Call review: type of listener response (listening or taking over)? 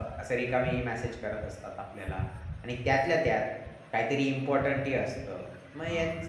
listening